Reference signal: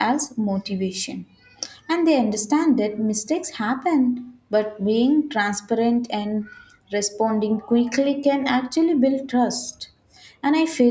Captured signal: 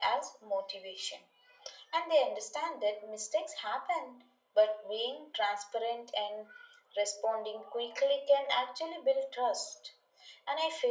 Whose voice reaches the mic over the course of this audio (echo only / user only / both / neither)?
echo only